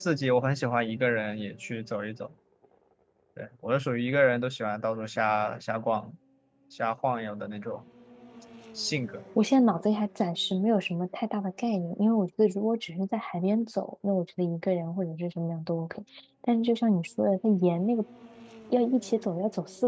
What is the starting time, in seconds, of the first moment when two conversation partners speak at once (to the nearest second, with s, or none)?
none